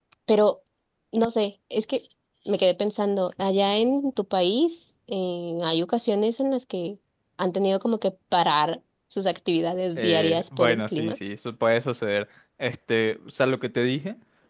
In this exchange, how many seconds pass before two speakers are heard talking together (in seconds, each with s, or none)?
10.0 s